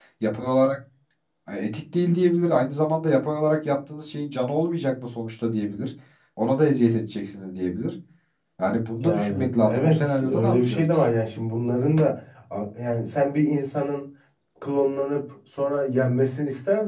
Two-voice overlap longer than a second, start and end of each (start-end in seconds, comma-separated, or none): 9.0-11.0